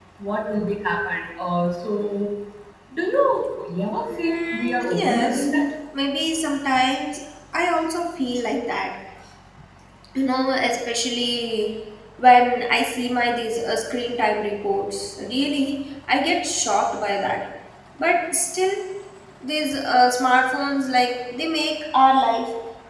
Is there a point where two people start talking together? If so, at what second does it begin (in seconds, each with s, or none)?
4.1 s